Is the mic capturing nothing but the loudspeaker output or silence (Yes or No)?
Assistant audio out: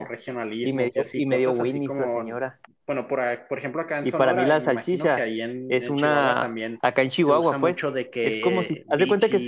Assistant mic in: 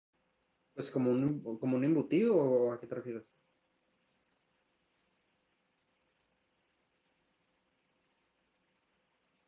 No